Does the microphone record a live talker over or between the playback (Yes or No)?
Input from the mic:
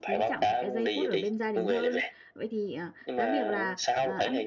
Yes